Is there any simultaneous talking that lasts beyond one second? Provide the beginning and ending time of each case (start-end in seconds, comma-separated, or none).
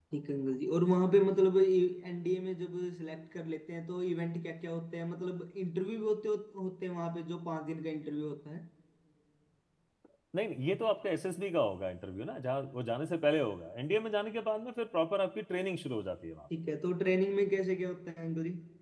none